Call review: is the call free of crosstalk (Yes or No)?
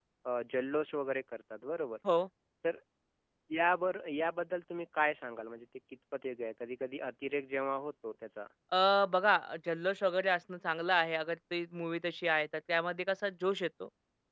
Yes